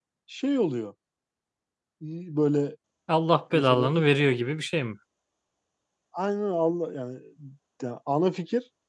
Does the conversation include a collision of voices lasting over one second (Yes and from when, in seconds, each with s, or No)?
No